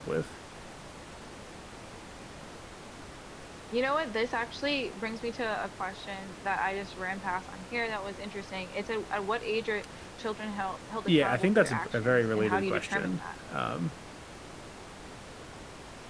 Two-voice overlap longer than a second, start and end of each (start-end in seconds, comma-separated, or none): 11.1-13.2